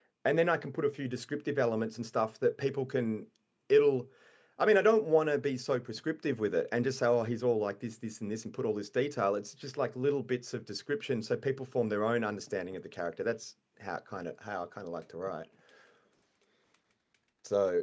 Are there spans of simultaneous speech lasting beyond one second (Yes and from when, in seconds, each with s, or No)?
No